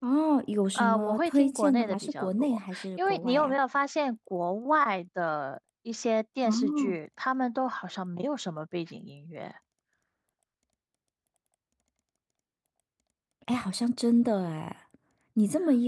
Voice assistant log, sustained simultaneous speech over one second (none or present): present